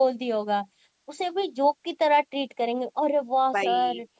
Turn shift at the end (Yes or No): No